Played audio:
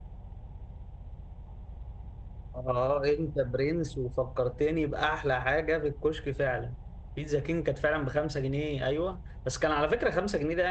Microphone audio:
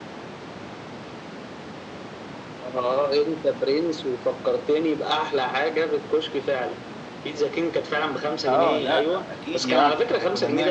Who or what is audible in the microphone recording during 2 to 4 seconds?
echo only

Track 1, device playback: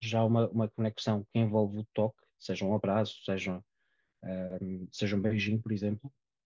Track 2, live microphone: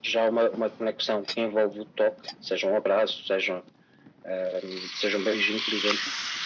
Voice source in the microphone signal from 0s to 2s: echo only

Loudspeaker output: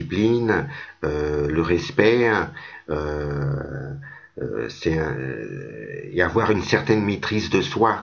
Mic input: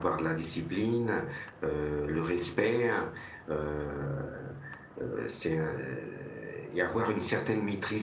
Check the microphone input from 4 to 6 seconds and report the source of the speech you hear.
echo only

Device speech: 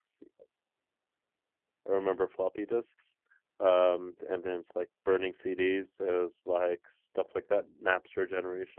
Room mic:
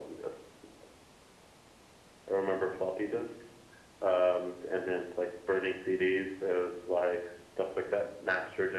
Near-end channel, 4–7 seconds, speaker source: echo only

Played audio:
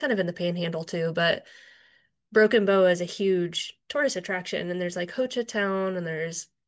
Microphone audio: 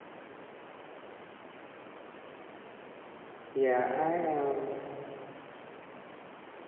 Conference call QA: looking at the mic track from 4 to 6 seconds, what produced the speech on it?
user only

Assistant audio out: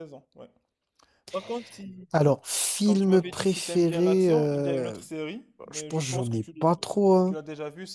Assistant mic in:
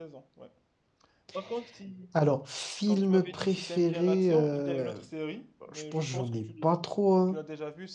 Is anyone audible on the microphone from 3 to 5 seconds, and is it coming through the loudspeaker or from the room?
echo only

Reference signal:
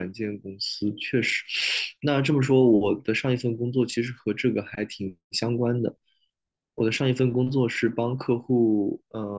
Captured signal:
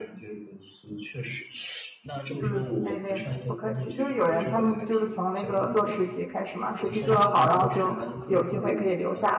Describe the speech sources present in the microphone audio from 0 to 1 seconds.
echo only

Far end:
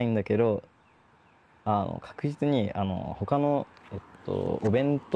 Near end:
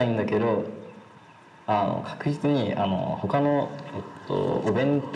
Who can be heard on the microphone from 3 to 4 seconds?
echo only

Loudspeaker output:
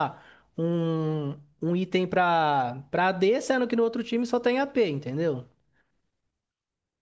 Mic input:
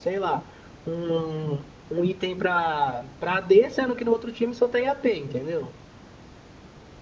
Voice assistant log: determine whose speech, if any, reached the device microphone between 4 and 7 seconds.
echo only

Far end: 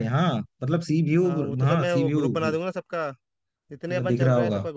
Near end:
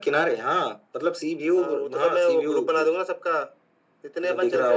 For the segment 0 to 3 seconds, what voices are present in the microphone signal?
echo only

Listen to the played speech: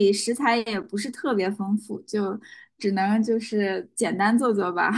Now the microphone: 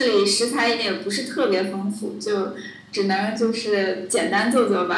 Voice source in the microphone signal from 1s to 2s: echo only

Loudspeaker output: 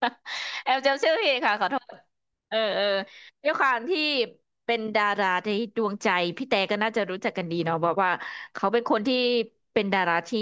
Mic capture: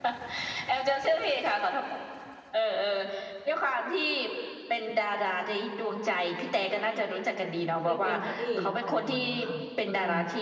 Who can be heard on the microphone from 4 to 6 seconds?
echo only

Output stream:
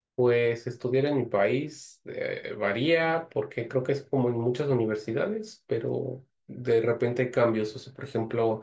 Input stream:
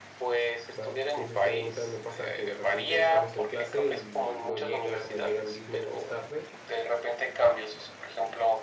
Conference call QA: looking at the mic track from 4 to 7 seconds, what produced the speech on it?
both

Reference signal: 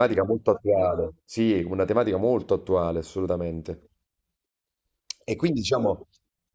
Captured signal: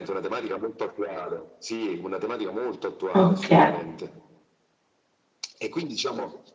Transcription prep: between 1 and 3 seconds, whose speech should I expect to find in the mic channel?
echo only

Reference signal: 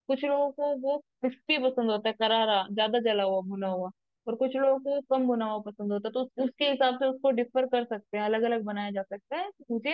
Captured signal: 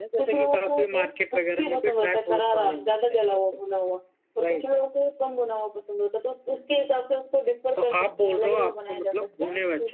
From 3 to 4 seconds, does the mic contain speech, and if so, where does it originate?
both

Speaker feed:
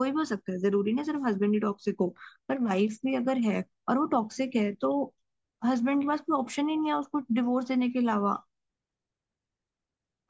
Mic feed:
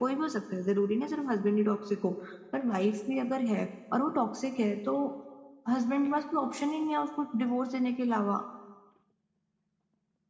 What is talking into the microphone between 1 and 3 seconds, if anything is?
echo only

